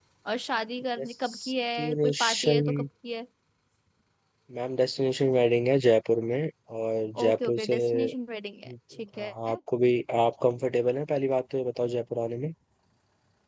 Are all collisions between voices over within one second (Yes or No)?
No